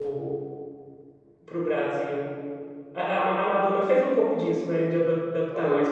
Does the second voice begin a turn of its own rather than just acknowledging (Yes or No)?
No